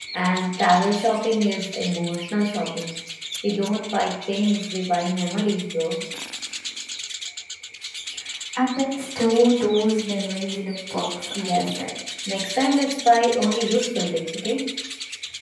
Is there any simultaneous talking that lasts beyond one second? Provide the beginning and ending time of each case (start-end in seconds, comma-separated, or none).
none